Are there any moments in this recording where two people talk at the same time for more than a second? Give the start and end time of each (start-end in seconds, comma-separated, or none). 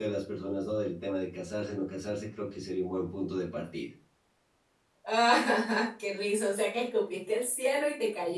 none